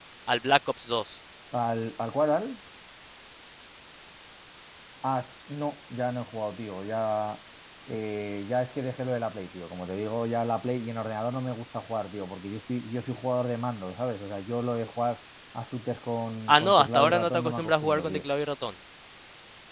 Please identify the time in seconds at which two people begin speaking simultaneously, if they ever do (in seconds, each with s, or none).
16.5 s